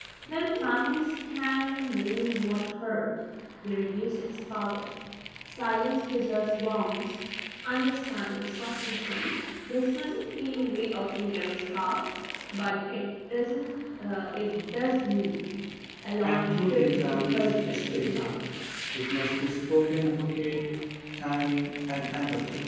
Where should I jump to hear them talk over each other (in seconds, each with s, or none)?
16.2 s